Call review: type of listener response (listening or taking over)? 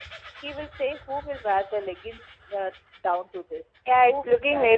taking over